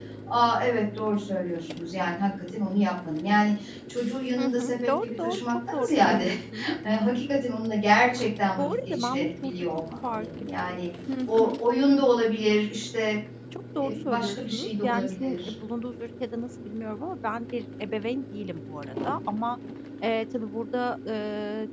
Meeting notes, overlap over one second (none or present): present